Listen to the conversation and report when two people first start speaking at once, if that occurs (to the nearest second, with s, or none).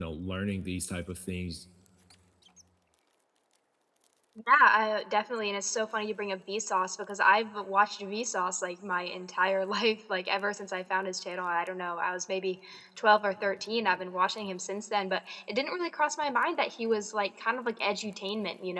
none